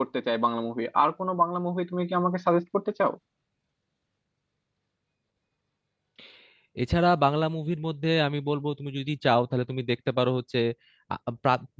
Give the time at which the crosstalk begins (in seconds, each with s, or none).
none